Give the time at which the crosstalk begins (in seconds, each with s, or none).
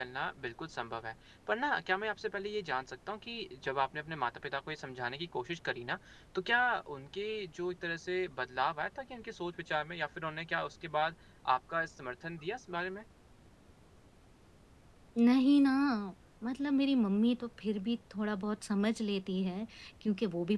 none